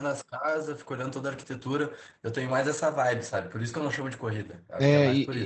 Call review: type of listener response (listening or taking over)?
taking over